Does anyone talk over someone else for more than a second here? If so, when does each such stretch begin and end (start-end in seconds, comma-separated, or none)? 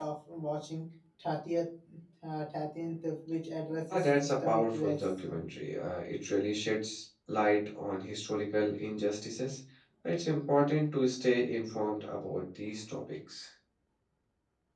3.9-5.4